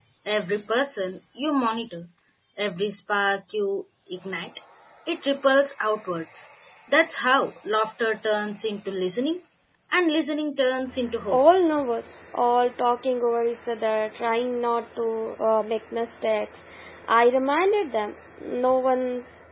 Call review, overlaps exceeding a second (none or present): none